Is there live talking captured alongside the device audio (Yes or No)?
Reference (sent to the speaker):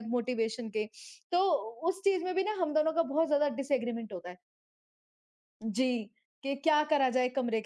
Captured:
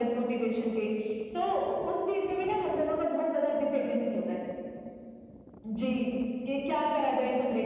No